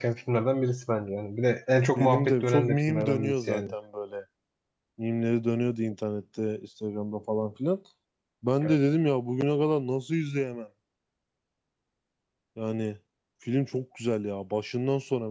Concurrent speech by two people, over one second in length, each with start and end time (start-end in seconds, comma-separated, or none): 2.0-3.6